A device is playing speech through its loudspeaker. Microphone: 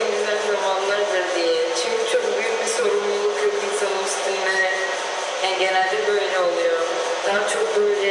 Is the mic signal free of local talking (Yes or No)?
Yes